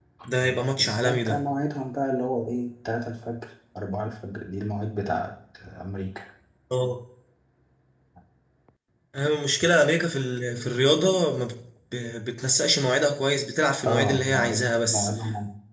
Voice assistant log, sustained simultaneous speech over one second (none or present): present